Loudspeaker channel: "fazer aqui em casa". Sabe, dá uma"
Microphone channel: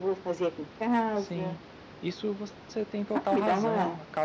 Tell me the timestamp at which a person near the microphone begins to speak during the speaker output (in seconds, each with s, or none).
1.1 s